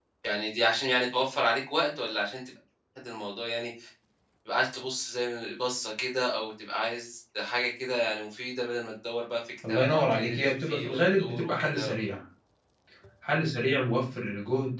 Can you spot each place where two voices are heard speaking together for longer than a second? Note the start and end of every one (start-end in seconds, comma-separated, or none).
9.7-11.9